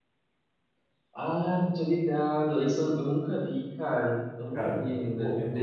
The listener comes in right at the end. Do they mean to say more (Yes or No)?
Yes